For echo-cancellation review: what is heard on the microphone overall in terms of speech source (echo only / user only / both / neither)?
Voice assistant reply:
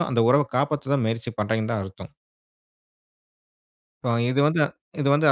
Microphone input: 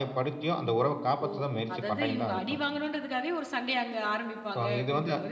both